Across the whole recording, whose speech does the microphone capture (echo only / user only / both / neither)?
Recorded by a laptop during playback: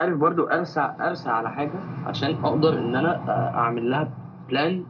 echo only